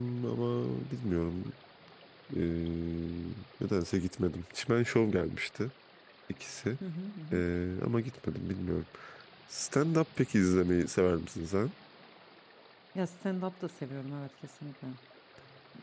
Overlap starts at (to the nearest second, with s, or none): none